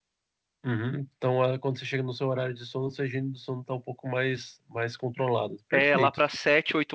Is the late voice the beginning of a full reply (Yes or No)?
Yes